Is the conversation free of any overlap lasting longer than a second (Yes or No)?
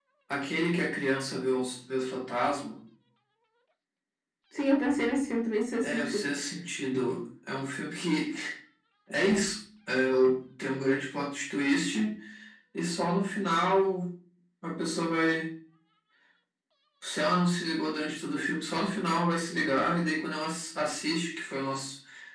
Yes